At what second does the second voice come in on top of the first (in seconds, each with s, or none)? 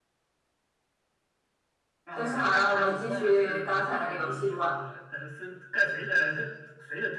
2.2 s